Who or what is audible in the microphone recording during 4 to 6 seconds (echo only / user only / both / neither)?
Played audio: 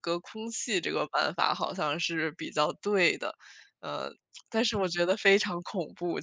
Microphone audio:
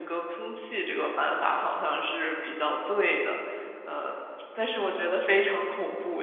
echo only